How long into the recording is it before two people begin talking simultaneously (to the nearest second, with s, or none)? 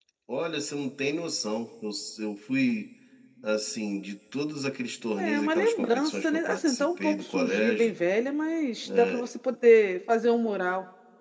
5 s